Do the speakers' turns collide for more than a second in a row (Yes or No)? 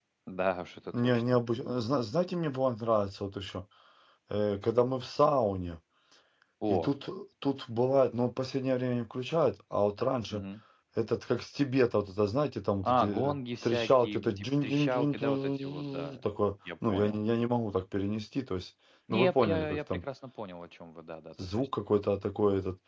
Yes